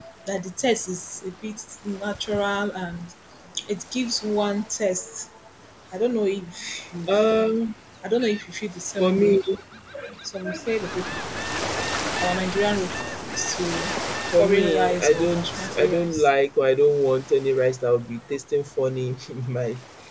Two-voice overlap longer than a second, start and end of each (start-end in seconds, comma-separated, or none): 14.3-16.3